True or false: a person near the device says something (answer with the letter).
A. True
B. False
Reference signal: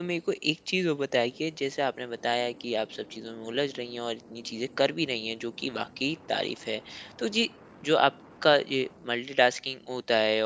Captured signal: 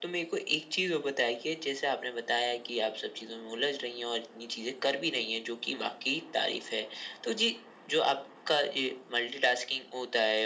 B